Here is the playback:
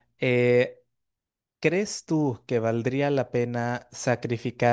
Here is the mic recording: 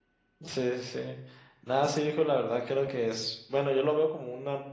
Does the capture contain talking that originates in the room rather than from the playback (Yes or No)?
Yes